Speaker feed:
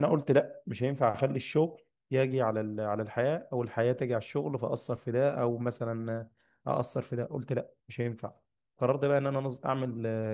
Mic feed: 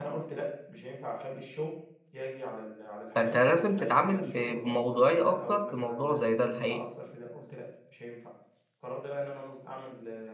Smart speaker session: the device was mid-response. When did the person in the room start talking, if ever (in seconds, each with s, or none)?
3.1 s